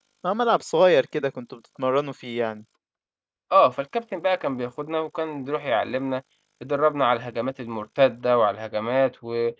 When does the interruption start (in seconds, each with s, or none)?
none